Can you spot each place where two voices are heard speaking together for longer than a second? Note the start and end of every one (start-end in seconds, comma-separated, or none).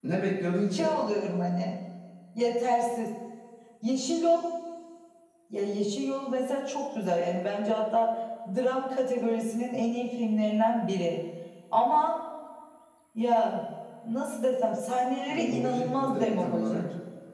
15.3-16.8